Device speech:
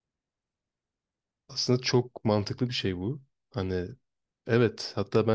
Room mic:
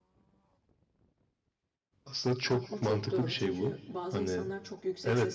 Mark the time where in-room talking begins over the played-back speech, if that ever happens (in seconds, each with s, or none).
2.5 s